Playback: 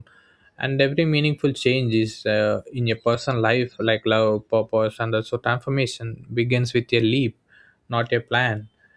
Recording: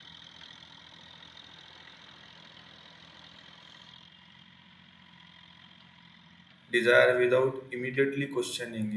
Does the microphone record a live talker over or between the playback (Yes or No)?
Yes